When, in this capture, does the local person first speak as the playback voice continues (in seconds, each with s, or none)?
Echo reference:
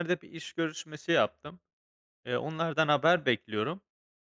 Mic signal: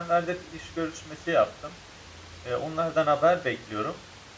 none